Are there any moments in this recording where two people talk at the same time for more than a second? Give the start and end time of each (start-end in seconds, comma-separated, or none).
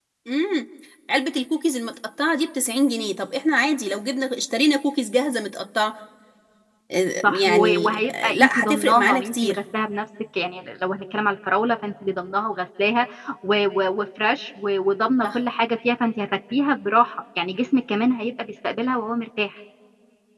7.2-9.6